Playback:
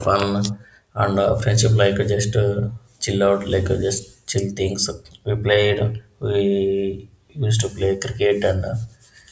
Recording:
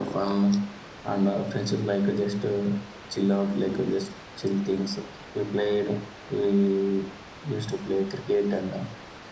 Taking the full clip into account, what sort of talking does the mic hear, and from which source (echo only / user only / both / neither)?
echo only